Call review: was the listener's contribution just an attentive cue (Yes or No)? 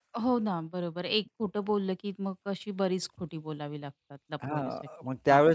No